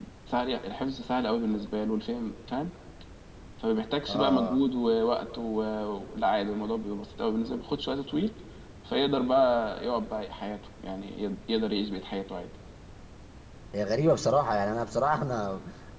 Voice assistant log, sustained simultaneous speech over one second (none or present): none